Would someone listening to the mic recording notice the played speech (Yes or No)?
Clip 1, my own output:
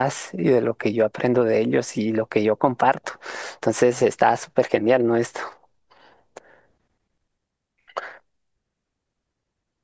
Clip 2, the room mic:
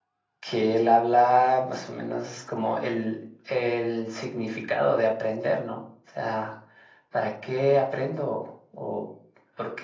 No